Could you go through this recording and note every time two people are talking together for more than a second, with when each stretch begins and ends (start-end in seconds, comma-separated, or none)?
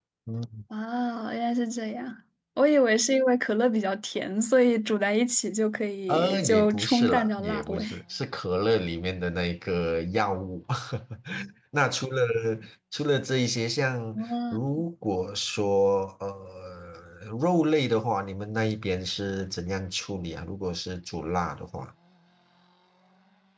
6.1-7.8